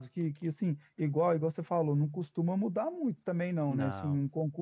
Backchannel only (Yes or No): Yes